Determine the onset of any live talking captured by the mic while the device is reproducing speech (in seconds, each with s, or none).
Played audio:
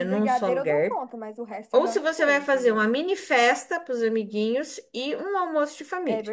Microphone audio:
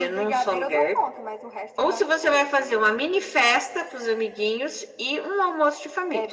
none